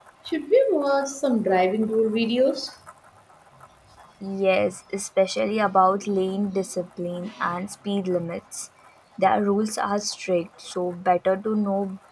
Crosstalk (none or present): none